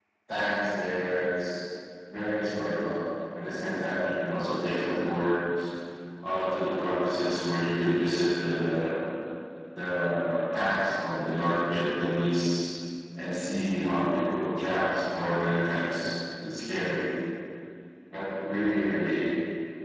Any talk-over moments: No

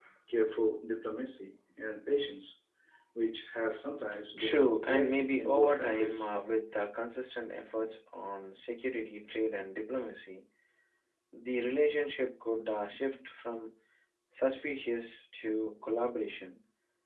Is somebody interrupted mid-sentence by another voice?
Yes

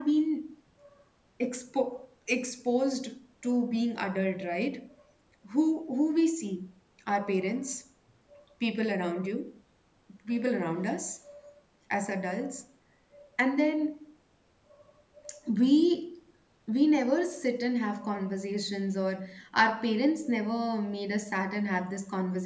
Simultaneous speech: No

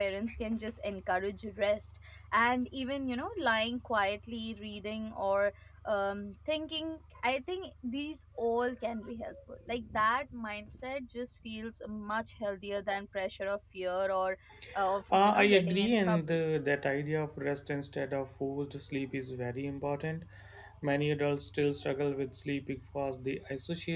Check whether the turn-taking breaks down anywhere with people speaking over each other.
Yes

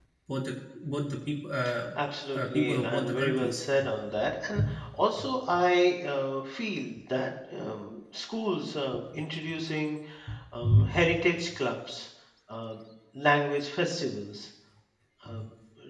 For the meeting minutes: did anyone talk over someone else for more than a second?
Yes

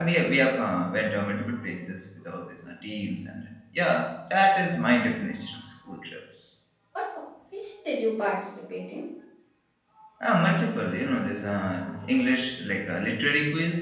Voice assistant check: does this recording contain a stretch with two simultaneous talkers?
No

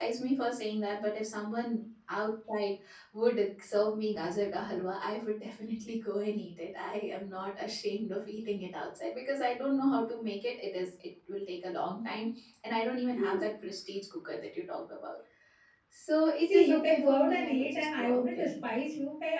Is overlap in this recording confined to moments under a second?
No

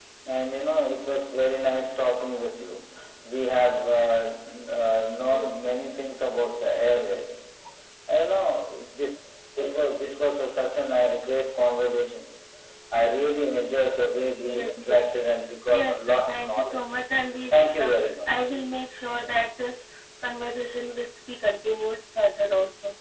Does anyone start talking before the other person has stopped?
Yes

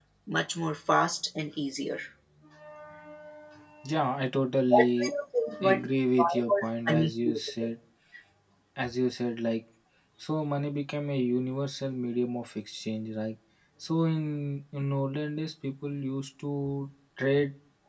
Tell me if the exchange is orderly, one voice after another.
No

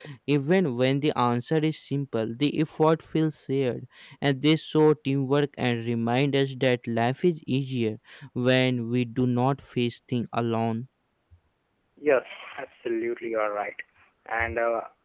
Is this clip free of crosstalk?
Yes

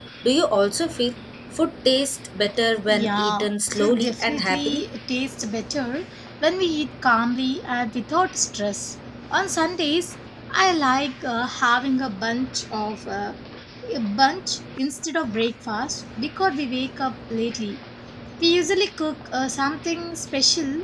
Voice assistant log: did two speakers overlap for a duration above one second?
Yes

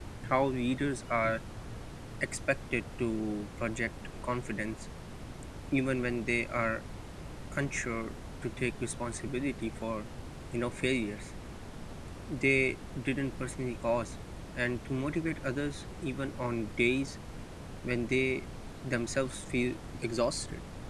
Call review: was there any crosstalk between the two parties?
No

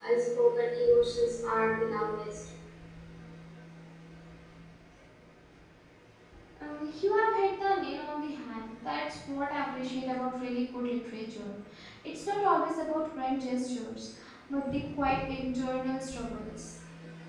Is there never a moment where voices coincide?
Yes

